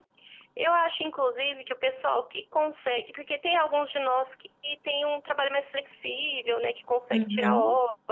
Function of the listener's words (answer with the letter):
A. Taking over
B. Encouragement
B